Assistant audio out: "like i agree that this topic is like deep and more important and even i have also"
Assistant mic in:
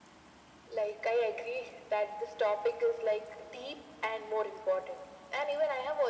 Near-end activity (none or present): none